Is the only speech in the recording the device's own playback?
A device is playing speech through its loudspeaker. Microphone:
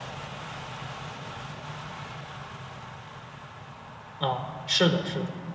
No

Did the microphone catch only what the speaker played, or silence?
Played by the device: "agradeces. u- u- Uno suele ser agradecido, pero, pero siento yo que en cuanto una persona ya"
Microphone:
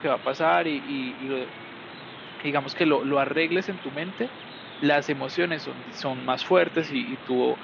No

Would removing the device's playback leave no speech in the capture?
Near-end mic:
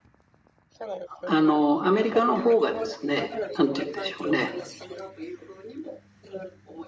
No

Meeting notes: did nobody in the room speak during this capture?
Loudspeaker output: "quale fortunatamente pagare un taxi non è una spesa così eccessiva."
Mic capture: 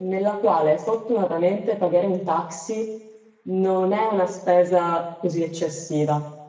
Yes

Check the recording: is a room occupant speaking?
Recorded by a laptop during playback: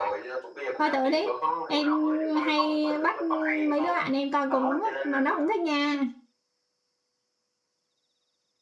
Yes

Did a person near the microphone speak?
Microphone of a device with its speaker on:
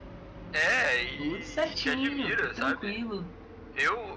Yes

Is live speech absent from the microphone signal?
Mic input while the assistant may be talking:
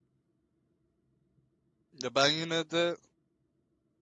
No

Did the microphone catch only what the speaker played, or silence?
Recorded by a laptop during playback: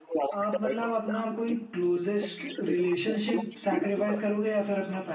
No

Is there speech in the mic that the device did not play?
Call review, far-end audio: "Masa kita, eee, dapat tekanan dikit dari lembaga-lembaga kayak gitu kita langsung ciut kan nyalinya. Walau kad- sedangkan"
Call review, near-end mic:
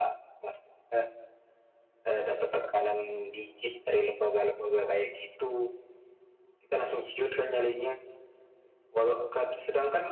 No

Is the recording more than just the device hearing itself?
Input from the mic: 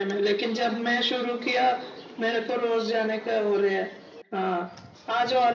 No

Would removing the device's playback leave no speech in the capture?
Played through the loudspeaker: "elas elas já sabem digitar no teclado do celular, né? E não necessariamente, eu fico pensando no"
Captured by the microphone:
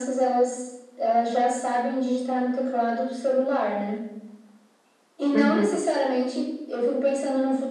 No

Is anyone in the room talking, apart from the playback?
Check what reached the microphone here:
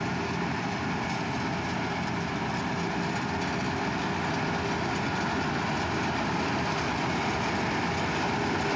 No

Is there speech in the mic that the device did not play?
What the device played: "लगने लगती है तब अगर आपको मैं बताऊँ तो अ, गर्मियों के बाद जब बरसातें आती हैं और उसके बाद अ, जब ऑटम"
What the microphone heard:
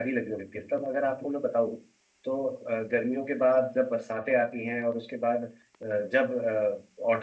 No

